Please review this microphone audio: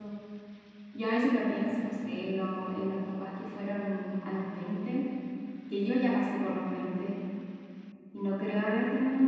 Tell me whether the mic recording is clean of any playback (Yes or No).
Yes